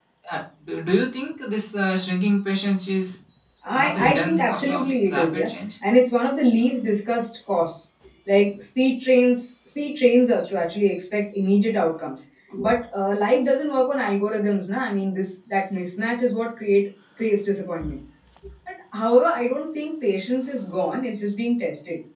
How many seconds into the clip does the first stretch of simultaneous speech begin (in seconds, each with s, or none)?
3.7 s